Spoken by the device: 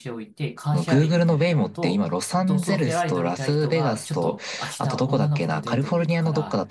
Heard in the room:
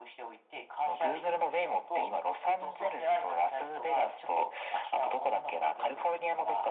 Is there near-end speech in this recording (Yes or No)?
No